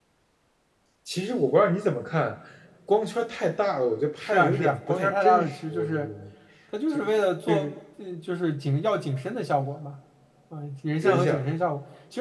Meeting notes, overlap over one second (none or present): present